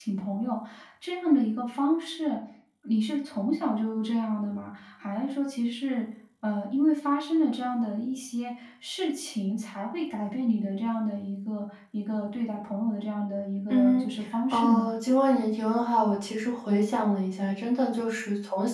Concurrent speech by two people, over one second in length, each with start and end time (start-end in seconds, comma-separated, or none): none